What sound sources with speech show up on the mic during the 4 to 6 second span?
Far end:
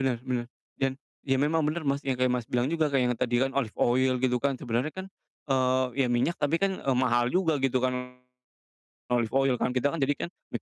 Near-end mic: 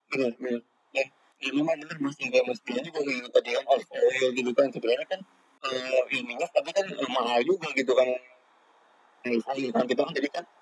echo only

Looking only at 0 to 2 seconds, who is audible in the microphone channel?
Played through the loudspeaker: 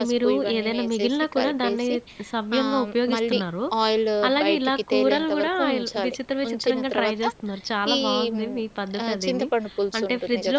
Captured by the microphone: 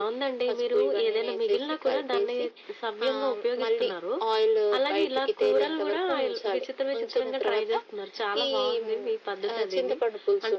echo only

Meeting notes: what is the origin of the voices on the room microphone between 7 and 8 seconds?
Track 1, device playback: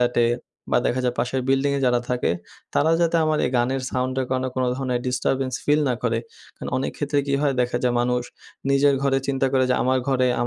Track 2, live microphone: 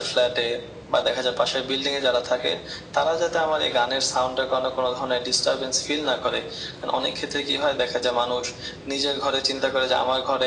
echo only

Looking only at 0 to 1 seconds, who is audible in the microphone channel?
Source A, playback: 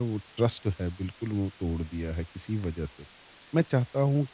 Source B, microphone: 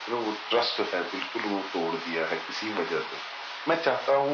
echo only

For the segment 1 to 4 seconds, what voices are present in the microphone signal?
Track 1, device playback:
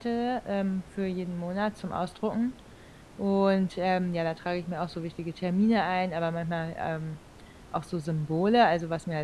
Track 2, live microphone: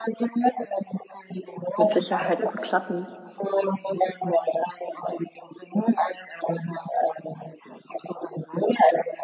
both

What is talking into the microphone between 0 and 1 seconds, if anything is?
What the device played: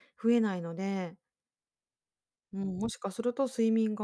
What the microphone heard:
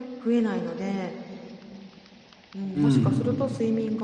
echo only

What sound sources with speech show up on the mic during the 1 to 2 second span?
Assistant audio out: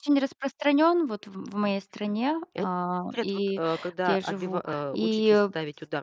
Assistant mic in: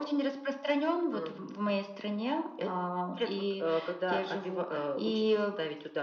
both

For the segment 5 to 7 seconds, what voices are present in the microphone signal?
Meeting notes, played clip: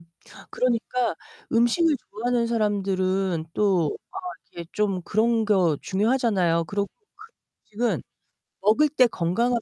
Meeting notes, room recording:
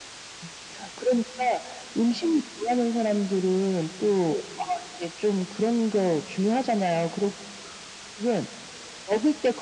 echo only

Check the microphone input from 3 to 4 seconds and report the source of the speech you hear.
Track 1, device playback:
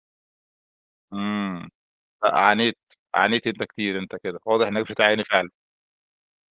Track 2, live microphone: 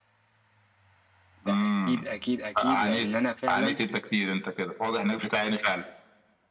both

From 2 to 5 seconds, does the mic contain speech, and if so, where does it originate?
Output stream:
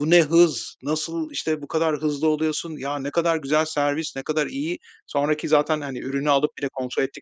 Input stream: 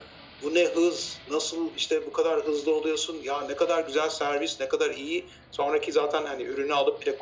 echo only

